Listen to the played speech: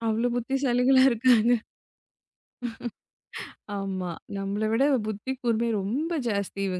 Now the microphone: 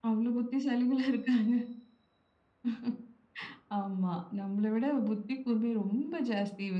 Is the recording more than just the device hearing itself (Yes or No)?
No